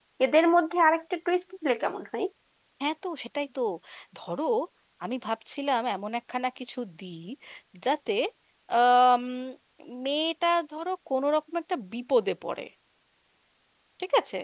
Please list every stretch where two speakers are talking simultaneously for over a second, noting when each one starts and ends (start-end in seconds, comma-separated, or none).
none